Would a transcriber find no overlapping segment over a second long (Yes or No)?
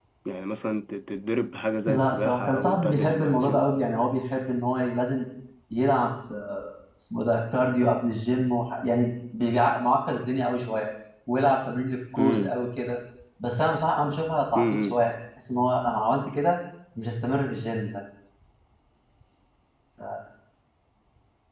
No